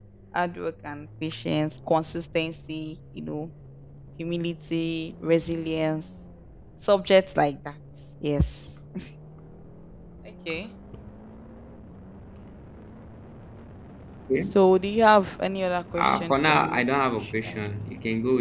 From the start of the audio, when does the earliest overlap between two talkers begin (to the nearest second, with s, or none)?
16 s